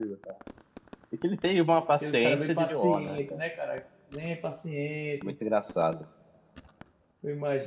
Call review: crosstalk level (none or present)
present